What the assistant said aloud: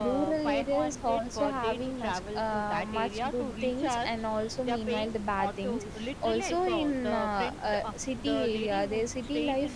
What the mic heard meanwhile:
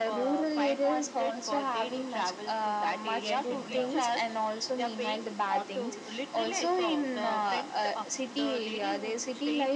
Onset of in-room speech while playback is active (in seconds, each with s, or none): 3.1 s